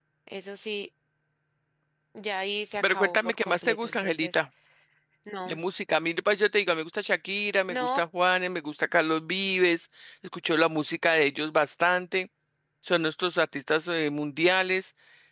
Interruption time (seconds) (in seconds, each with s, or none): 2.8 s